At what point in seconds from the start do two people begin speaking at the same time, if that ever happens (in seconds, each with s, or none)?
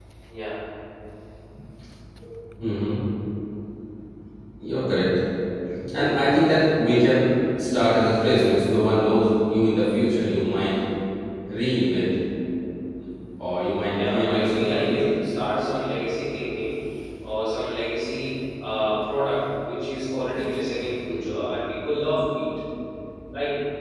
13.9 s